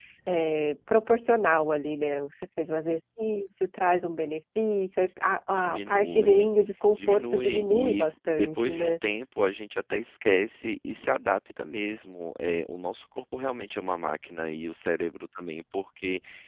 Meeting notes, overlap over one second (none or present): present